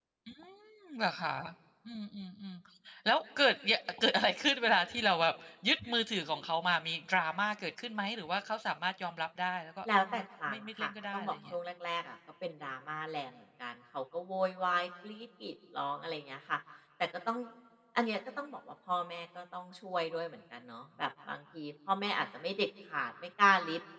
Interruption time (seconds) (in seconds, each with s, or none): 9.9 s